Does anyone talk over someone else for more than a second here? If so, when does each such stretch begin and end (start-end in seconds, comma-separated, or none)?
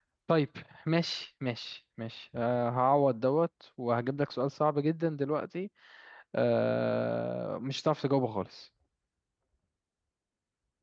none